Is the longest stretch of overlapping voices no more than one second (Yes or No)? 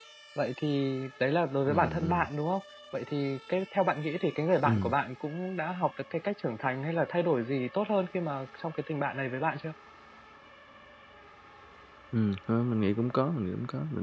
Yes